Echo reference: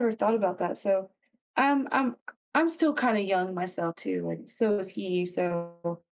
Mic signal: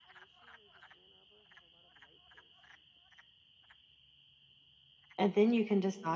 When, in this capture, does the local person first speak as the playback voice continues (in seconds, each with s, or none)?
5.2 s